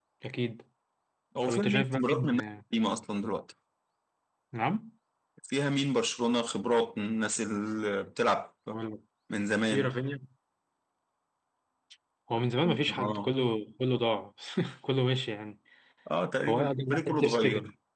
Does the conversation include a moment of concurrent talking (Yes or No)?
Yes